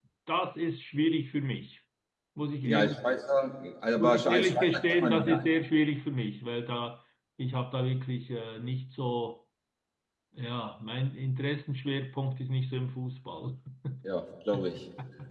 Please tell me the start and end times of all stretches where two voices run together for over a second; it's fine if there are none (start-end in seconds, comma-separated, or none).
4.0-5.5